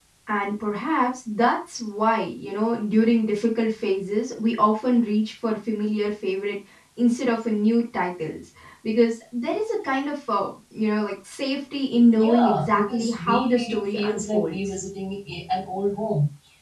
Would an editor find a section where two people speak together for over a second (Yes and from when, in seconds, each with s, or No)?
Yes, from 12.2 s